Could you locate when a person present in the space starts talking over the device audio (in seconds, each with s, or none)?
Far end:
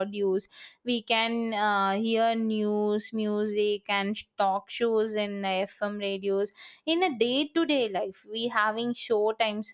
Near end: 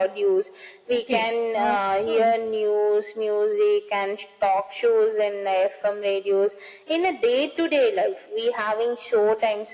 0.9 s